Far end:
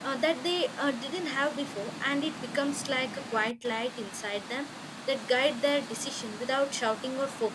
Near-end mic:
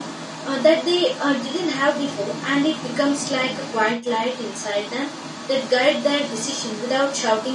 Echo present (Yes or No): Yes